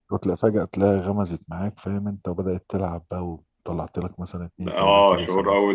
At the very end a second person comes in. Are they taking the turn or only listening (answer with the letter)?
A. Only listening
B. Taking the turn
B